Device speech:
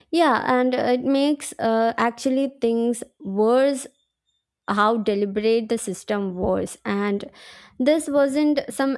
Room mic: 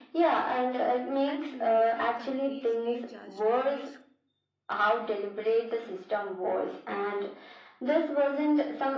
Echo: present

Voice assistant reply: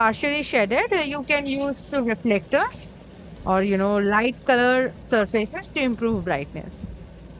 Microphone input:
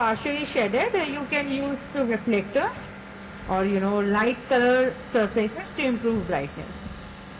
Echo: present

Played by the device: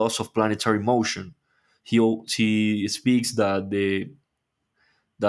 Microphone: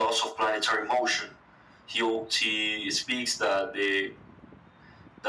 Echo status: present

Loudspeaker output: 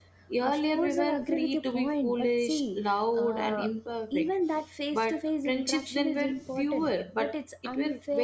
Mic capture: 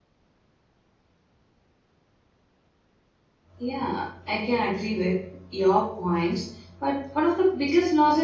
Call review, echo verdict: none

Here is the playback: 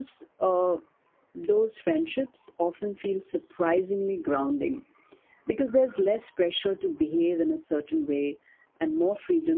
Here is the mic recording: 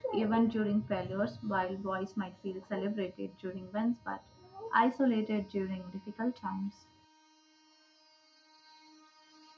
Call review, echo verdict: none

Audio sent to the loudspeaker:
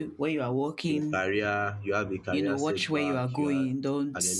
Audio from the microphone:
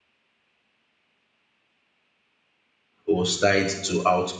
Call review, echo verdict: none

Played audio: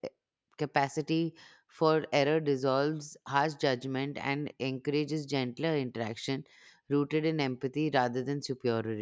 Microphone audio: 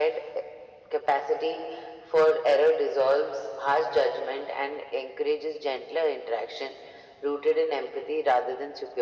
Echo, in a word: present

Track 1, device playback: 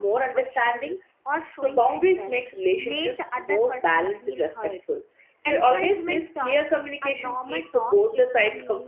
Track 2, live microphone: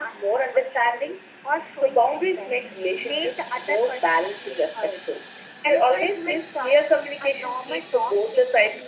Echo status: present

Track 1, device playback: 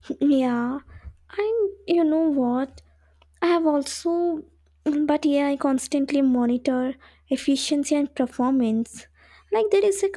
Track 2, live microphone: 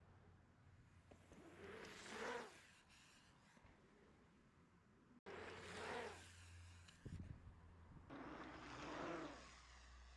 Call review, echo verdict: none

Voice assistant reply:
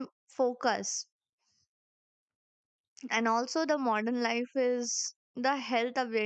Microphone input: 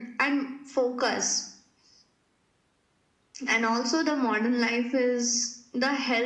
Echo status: present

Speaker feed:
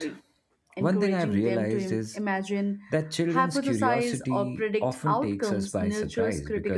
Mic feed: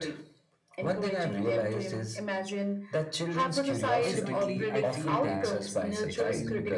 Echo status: present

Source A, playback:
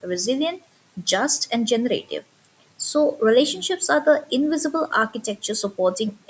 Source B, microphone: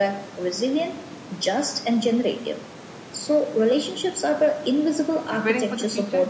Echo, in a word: present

